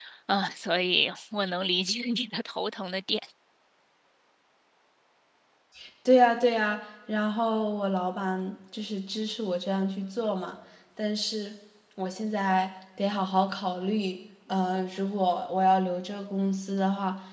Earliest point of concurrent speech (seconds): none

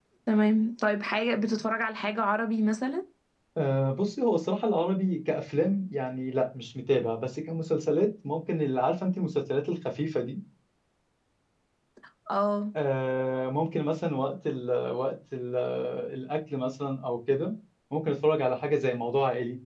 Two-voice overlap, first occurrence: none

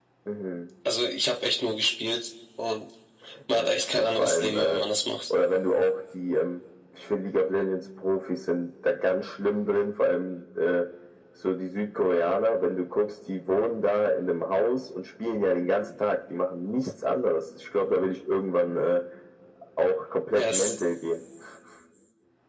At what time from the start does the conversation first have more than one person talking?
3.5 s

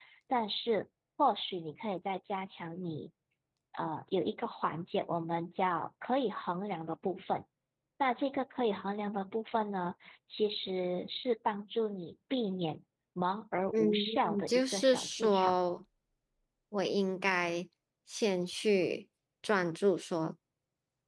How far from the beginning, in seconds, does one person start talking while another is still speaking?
13.7 s

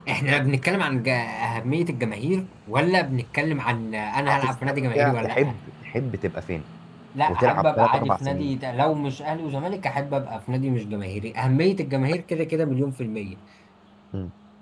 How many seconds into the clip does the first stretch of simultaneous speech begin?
4.3 s

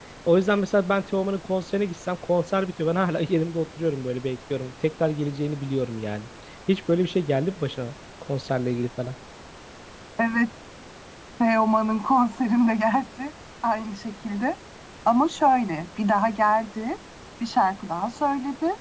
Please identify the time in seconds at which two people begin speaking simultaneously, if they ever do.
none

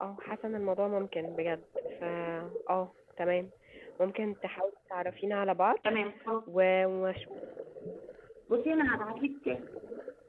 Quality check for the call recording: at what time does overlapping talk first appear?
none

